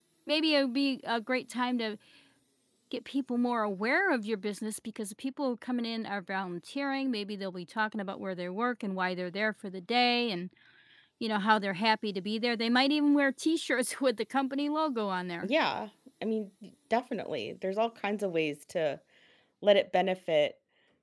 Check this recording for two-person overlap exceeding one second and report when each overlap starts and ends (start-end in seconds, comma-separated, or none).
none